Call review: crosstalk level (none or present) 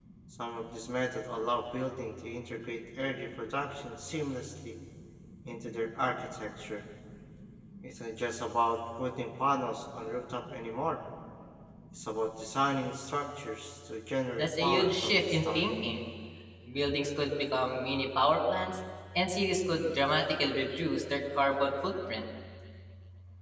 present